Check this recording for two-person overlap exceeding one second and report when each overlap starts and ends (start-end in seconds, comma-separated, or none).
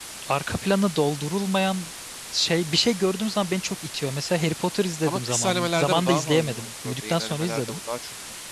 5.0-7.8